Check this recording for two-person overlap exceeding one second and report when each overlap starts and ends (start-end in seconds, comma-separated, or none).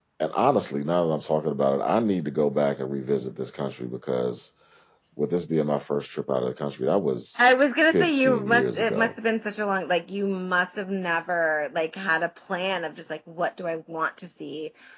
7.9-9.2